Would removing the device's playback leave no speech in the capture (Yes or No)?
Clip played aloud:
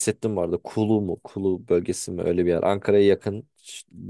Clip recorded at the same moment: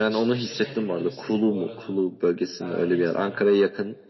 No